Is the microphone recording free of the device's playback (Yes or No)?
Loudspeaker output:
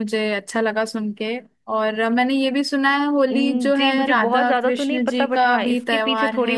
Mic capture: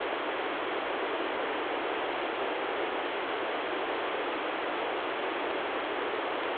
Yes